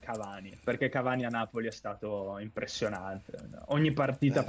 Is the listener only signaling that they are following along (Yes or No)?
Yes